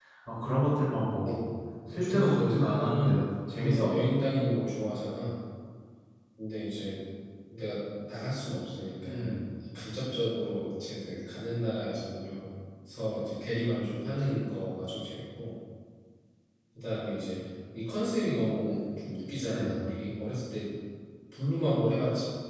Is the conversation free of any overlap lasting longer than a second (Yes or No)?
No